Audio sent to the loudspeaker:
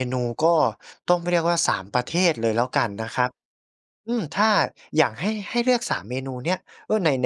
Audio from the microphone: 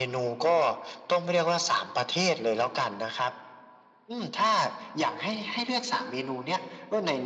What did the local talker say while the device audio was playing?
none

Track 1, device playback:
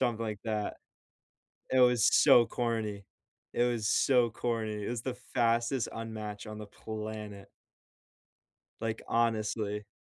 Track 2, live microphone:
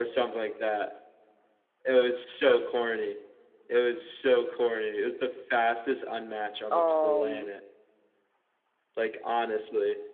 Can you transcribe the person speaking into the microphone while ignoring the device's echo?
um,

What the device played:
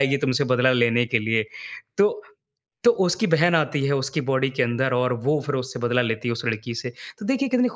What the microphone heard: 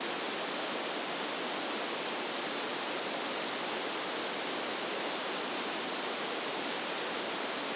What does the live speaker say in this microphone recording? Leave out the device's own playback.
none

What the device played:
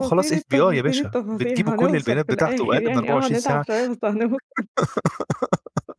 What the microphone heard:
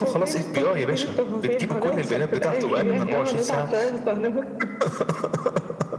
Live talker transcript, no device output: اهم.

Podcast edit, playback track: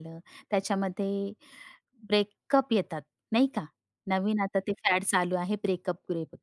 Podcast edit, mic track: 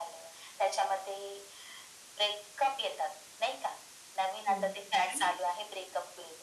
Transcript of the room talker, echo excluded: हो. आणि

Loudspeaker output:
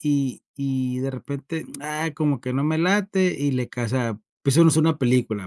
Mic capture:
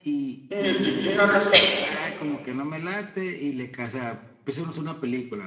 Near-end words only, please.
n n n no lo sé,

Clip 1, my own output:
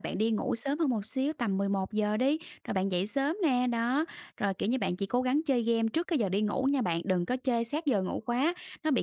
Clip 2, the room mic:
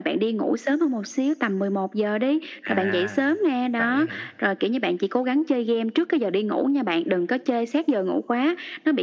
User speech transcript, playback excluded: À, vậy á hả?

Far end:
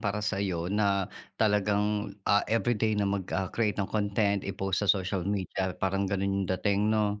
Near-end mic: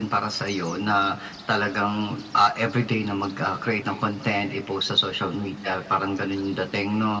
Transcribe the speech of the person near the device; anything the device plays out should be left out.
none

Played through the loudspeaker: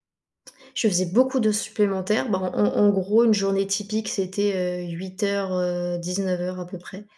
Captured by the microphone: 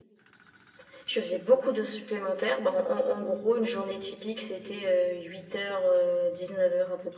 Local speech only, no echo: none

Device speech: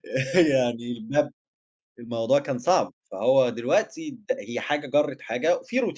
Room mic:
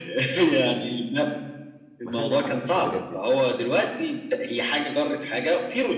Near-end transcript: مخلّي حماسَك متجدد؟

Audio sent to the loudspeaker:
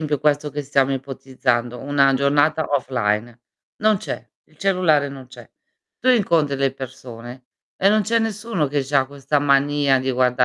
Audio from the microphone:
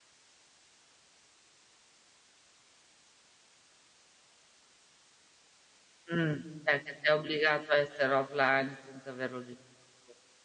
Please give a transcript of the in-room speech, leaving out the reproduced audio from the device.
Mh. È che sei obbligato a essere offline senza averlo deciso tu.

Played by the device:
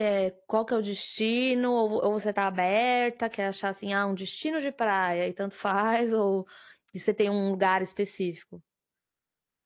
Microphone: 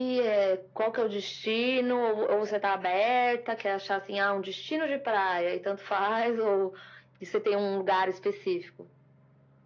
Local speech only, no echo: none

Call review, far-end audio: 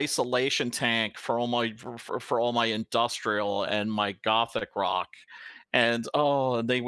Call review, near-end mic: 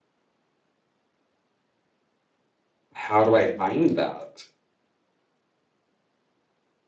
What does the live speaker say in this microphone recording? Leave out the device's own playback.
"How do I find that?"

